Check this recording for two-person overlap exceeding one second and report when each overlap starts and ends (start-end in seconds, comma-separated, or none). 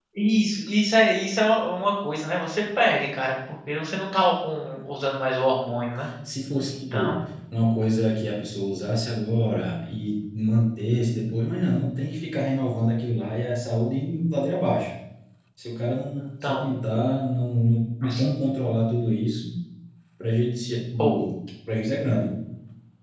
none